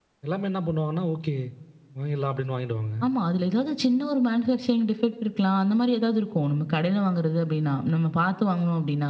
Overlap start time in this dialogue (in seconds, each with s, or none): none